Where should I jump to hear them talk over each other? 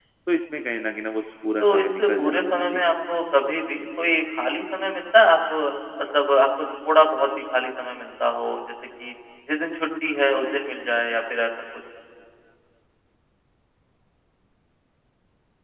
1.6 s

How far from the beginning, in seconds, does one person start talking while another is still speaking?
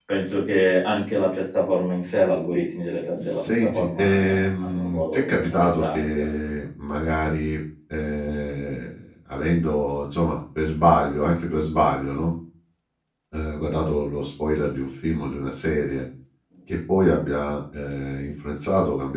3.2 s

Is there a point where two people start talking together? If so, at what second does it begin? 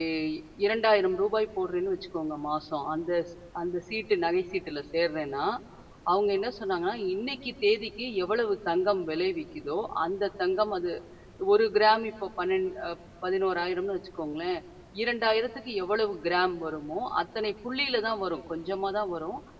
none

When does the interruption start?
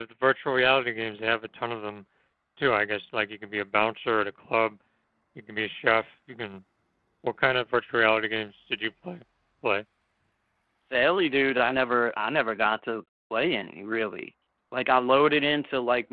none

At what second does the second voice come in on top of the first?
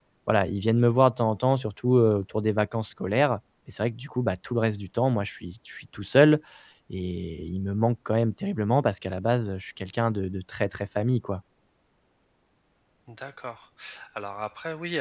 none

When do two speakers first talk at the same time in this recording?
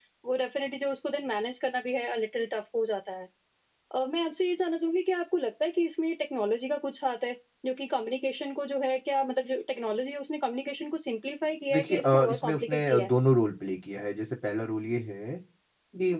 11.7 s

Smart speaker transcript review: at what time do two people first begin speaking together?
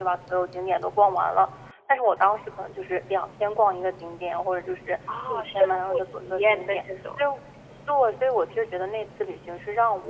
5.1 s

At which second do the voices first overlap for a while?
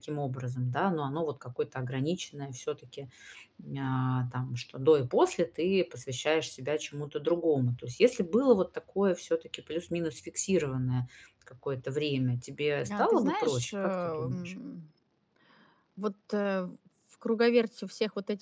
12.8 s

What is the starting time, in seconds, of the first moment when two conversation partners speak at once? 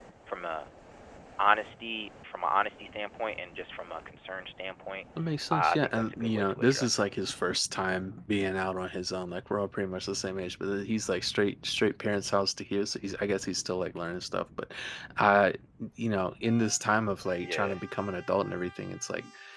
5.5 s

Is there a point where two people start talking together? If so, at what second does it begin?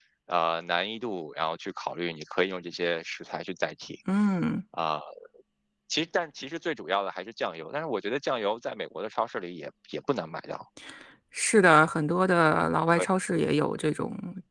none

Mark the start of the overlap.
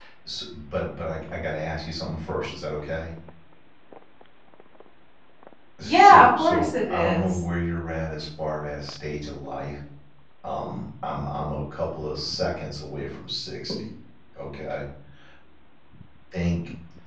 5.8 s

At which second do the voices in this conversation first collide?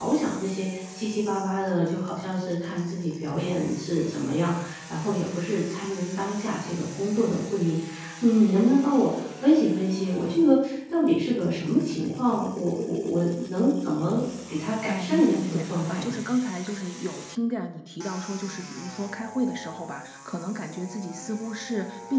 14.9 s

